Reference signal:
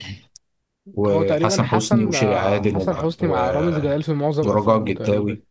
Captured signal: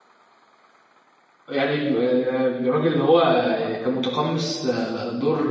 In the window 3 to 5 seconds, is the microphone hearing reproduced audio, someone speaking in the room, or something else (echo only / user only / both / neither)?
user only